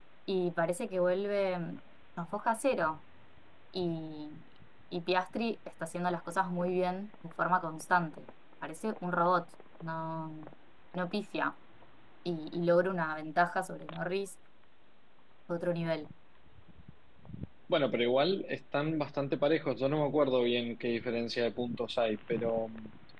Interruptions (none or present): none